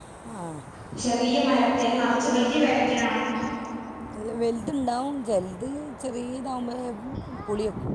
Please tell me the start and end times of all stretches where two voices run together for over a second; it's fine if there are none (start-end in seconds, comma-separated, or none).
none